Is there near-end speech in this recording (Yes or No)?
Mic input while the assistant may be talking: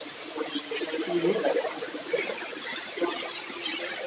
Yes